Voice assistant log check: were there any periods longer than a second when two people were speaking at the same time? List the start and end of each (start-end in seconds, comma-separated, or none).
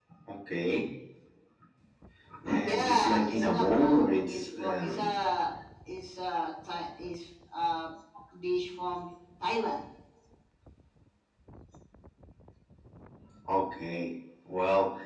2.6-5.1